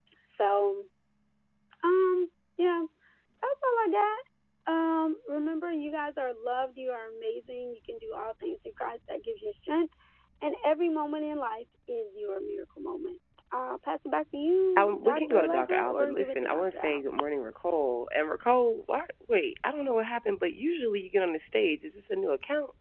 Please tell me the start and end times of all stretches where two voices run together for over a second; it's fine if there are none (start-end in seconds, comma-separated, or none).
14.8-16.9